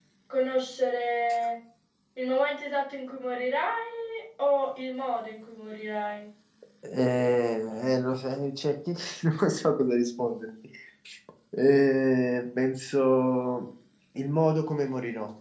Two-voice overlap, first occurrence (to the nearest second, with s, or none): none